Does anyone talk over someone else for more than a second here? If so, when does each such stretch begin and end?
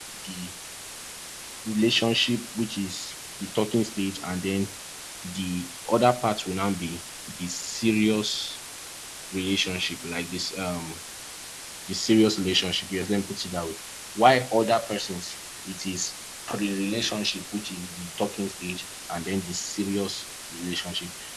none

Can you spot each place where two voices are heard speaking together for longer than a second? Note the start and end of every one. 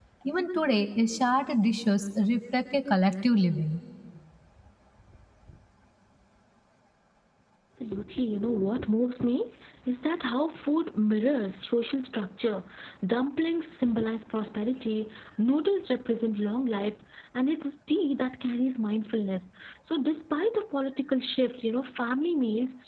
none

